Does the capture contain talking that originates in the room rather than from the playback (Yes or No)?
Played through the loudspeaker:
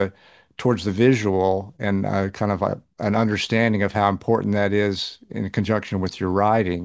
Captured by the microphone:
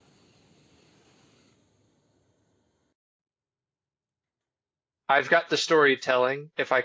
Yes